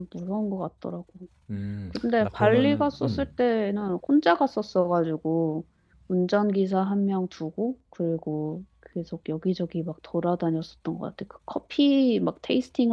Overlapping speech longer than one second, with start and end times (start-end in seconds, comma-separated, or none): 1.9-3.2